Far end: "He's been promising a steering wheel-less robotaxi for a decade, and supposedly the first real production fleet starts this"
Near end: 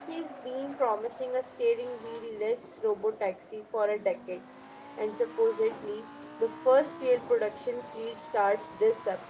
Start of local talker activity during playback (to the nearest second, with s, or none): none